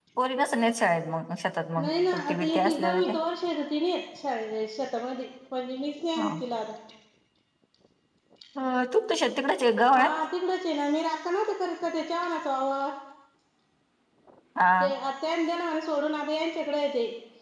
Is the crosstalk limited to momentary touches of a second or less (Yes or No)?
No